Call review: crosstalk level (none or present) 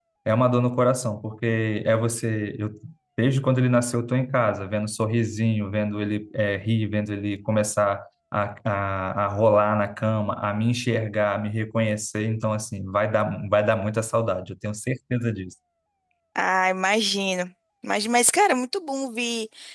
none